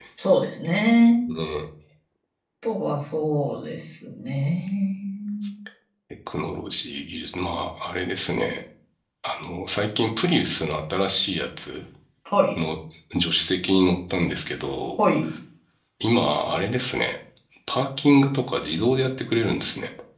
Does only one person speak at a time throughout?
Yes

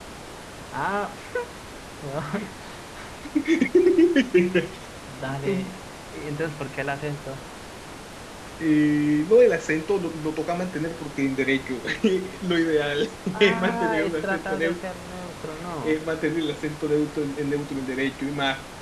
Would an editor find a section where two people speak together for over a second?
Yes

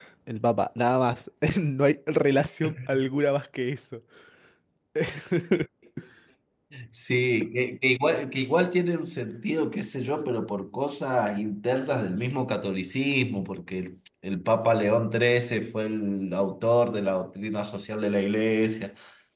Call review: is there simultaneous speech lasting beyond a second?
No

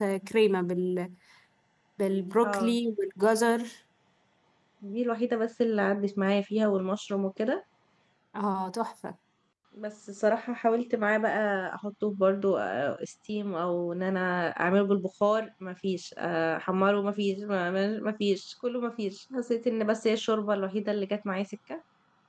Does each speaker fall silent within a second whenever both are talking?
Yes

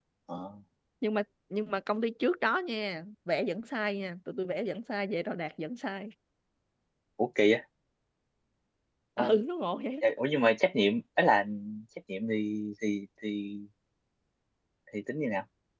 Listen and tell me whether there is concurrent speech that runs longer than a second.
No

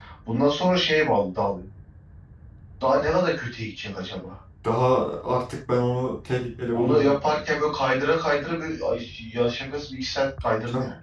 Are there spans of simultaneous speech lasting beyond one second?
No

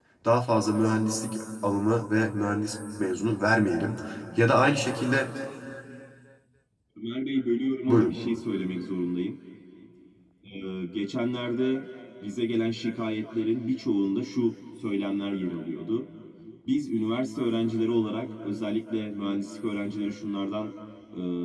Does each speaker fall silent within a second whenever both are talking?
Yes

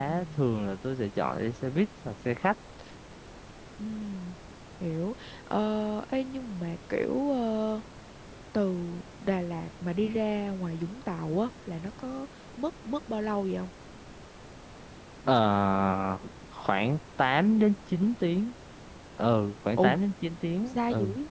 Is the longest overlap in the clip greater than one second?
No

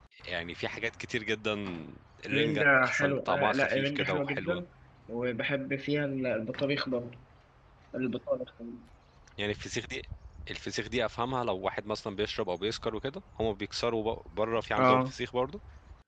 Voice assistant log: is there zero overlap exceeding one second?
No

